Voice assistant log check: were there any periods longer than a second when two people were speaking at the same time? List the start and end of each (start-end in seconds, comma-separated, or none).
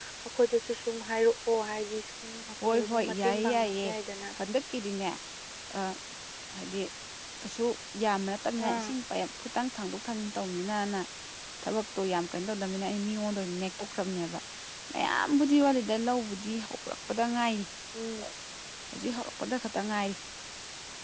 2.6-3.9